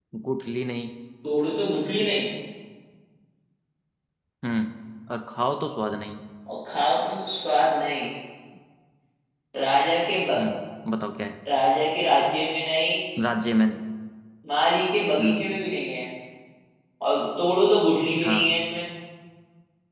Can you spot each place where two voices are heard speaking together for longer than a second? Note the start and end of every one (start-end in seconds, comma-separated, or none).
none